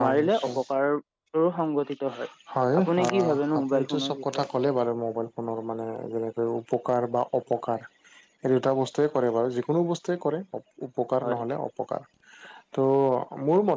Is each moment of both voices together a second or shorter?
No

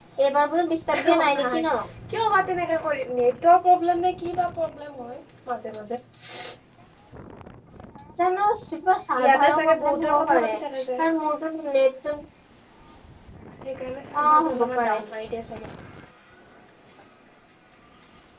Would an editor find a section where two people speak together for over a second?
Yes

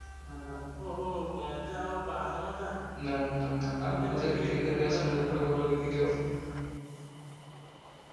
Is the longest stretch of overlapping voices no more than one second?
No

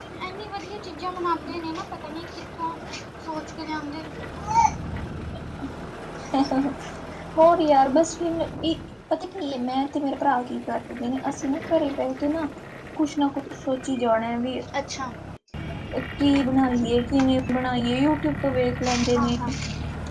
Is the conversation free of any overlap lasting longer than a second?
Yes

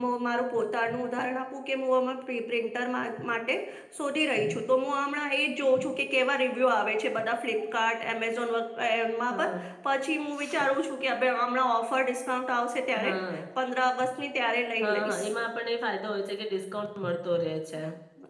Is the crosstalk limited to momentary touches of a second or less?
Yes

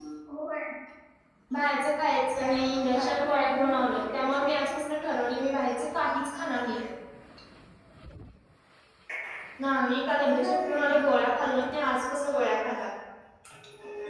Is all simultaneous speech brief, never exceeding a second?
No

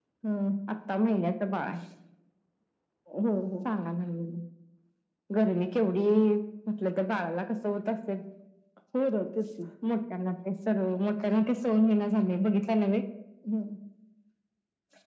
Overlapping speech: No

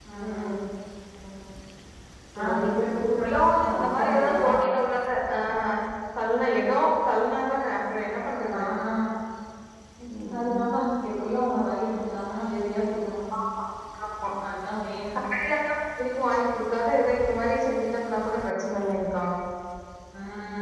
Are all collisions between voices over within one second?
No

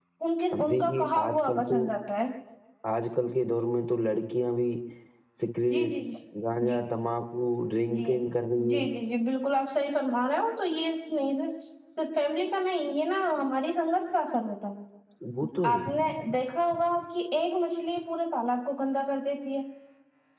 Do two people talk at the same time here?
Yes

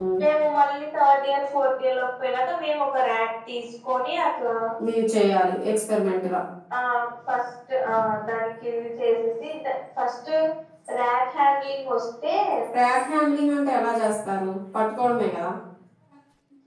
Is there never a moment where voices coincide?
Yes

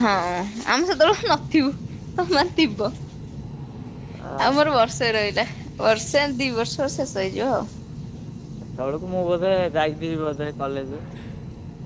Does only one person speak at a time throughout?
Yes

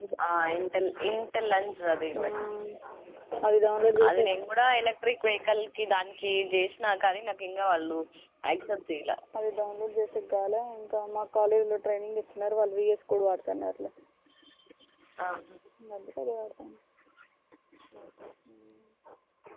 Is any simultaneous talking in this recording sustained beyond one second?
No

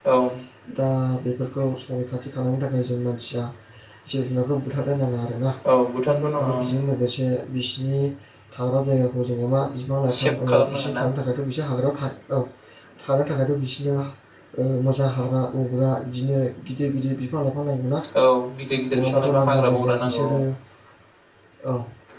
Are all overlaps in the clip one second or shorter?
No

